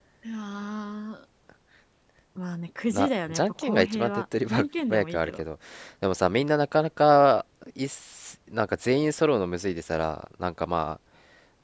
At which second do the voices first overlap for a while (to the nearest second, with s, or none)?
3 s